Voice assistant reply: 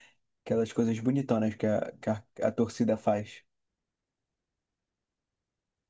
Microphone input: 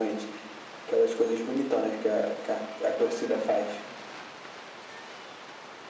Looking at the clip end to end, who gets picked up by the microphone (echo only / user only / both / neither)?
echo only